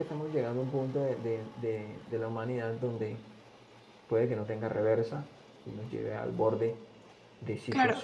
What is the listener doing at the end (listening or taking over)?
listening